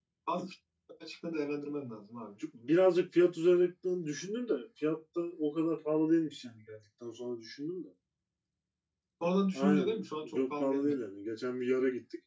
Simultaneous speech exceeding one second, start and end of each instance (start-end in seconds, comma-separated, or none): 9.5-10.9